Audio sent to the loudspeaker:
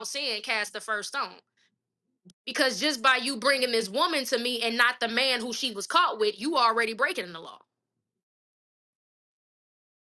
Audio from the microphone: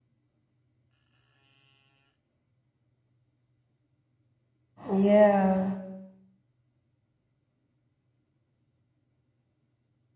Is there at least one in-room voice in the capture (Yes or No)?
Yes